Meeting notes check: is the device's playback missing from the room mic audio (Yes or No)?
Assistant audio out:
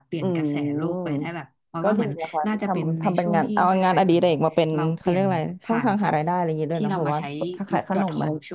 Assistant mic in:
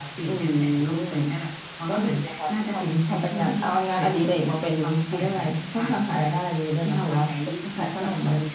No